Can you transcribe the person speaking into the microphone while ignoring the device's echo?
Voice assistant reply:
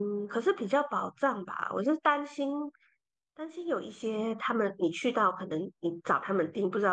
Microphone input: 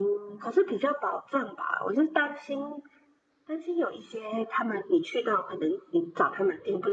none

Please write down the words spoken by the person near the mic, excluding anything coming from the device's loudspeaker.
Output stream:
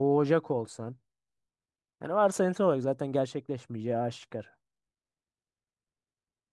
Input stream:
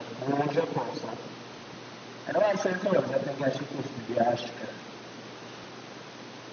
none

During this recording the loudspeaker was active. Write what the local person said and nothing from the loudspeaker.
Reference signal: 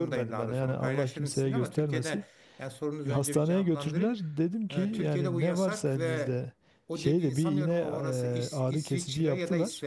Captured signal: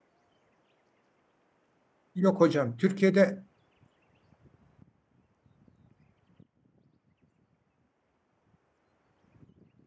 Yok hocam, Türkiye'de

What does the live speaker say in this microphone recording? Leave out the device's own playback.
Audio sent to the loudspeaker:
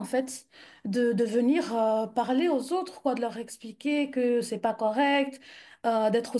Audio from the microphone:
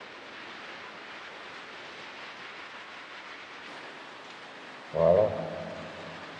Voilà.

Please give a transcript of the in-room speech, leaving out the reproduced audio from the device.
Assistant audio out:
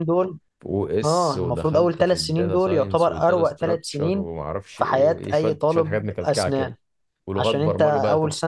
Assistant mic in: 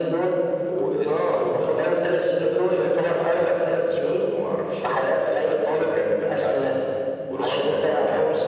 none

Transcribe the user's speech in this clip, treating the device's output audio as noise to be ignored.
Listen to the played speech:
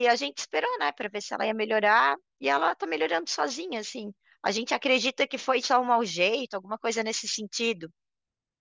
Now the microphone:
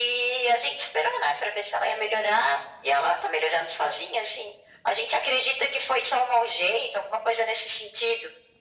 none

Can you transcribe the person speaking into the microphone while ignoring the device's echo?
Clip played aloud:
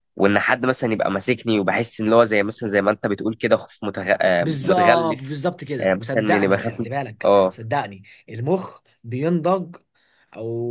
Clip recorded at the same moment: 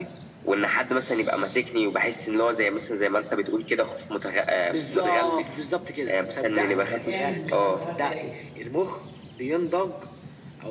آه، اعمل نظام خمس دقايق

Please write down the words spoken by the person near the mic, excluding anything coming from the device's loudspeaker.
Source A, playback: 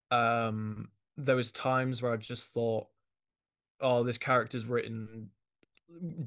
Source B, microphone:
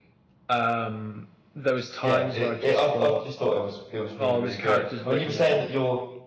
Yeah, it, it I, I just thought it was it was really really good. I mean, you were saying that you're

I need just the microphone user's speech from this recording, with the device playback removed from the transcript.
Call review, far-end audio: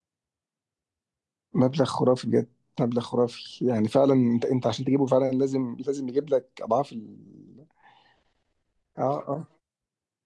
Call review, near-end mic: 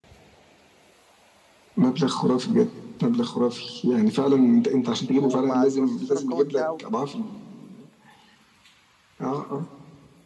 ومع البروسيسور القوي بتاعه

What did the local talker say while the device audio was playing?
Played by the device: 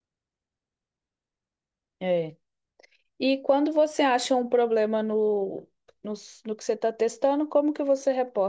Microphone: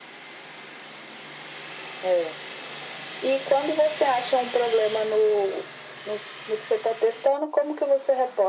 none

